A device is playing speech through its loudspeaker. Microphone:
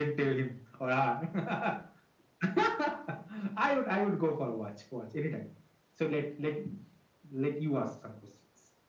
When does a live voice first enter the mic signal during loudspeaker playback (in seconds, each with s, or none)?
none